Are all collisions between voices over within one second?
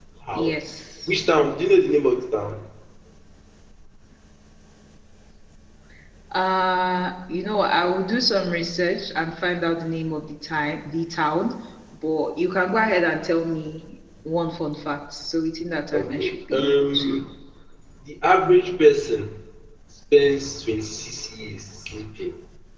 No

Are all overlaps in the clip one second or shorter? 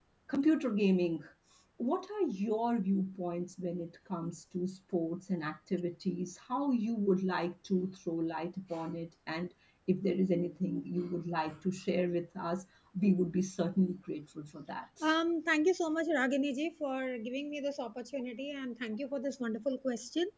Yes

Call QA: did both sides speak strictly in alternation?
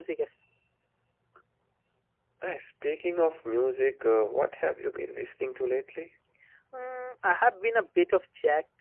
Yes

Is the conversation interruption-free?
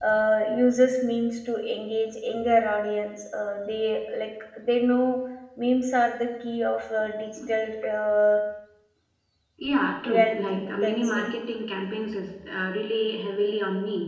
No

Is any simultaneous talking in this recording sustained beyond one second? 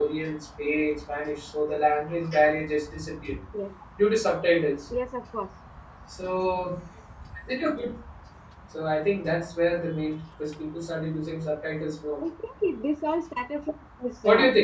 No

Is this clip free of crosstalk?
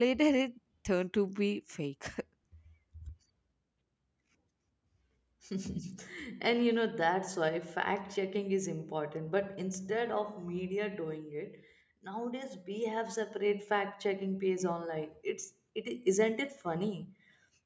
Yes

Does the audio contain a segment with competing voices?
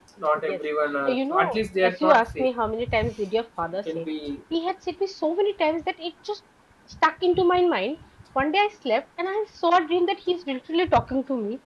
Yes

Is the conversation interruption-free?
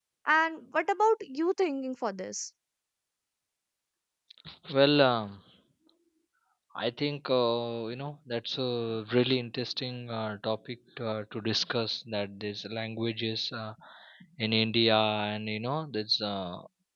Yes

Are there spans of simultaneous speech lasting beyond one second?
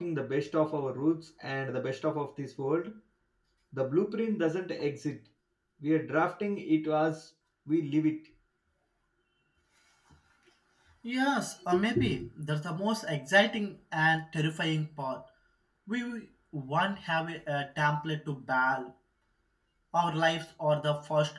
No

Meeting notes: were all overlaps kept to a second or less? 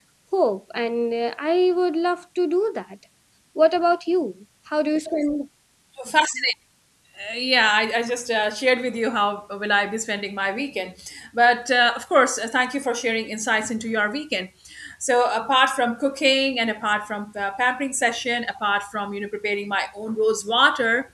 Yes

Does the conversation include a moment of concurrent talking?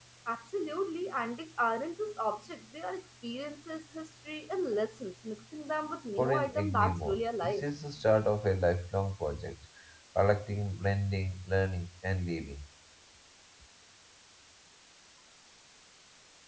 Yes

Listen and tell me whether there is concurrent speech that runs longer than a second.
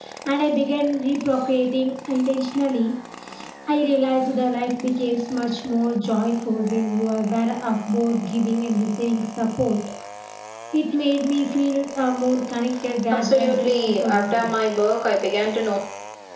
Yes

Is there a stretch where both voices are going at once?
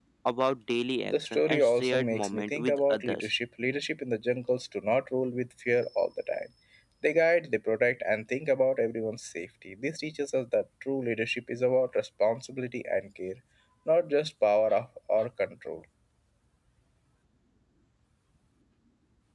Yes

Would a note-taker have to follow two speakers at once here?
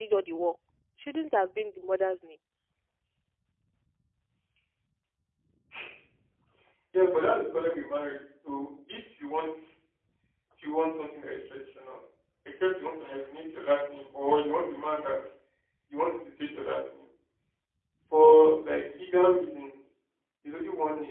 No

